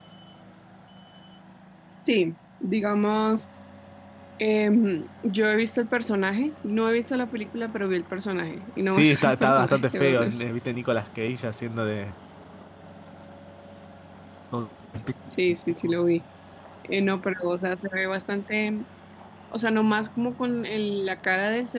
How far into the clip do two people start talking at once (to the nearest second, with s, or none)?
9 s